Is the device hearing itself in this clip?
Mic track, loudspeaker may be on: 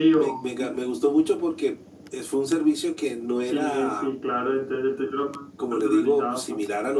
Yes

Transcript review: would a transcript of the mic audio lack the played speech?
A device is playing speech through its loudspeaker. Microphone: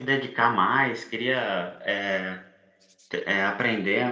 Yes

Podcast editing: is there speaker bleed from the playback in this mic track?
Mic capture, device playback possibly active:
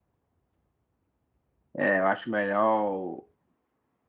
No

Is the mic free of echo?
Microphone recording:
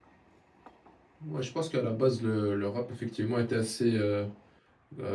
Yes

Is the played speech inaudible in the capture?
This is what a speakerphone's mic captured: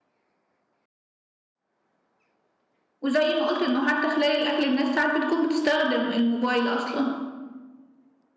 Yes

